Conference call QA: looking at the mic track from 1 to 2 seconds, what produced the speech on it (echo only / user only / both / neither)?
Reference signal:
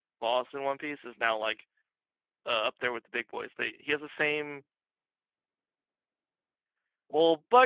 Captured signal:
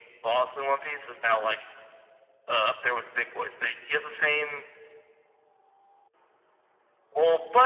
echo only